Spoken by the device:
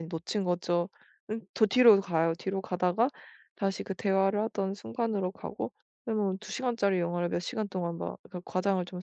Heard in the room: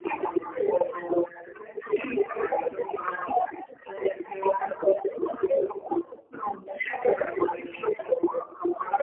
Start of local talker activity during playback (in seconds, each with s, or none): none